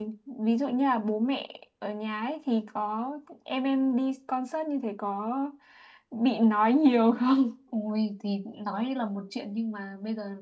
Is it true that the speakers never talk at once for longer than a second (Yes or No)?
Yes